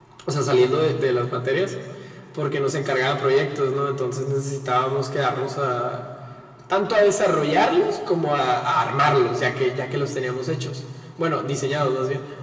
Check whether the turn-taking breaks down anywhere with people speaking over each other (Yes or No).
No